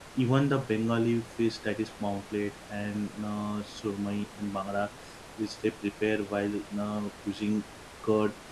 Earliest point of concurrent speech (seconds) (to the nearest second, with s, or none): none